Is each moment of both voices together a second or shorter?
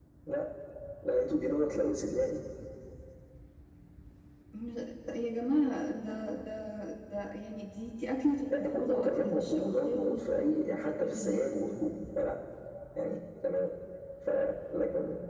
No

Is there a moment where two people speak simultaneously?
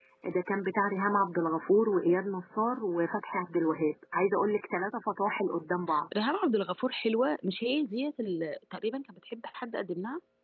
No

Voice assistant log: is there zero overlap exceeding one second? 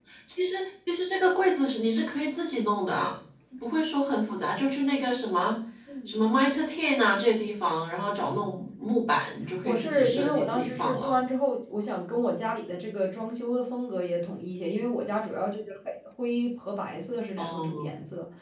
No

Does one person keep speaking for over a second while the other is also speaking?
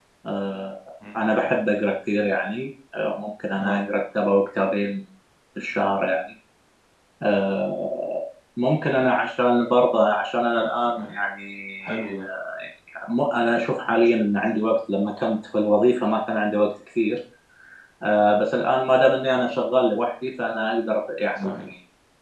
No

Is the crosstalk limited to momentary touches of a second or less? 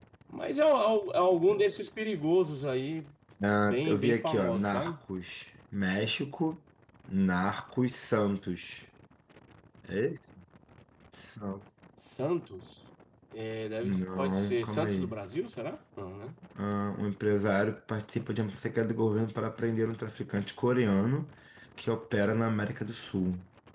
No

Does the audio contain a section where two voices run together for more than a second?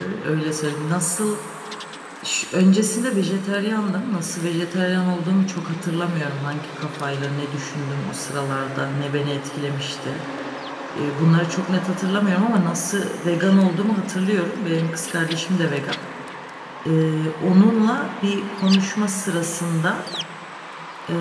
No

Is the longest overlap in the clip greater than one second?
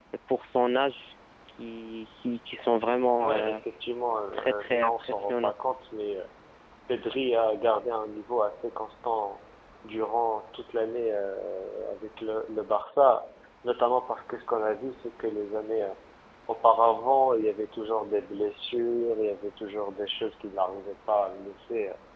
Yes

